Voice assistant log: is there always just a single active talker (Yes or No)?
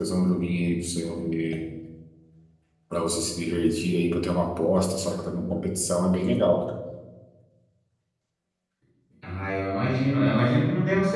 Yes